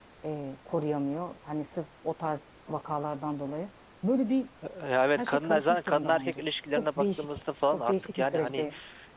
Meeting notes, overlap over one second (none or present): present